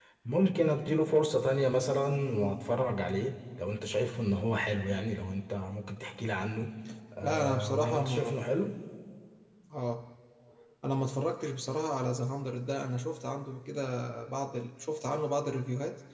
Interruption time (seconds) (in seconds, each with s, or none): 7.2 s